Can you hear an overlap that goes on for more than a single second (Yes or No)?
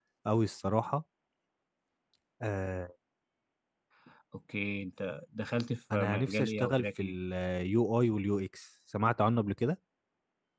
Yes